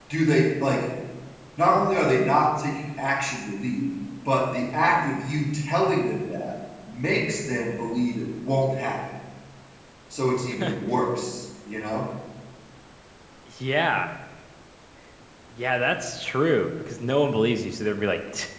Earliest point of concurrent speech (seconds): none

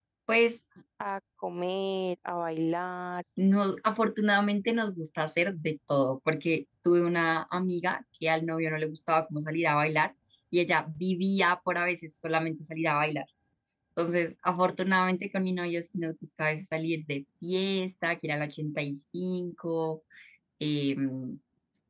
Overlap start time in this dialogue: none

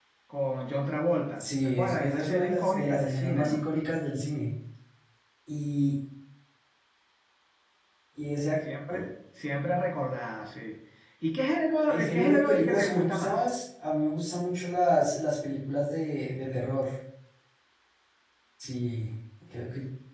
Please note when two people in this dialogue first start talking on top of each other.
1.4 s

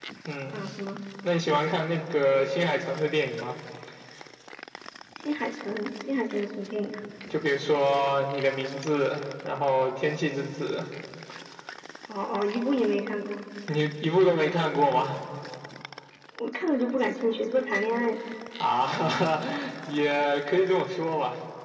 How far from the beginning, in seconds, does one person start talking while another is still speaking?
none

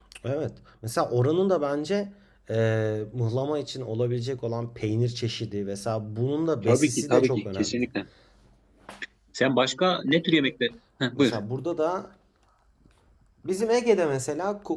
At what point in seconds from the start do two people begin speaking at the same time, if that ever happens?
6.7 s

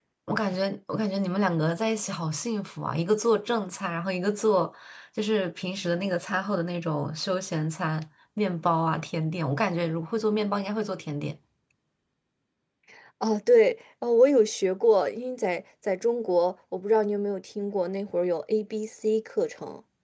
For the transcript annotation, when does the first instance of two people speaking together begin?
none

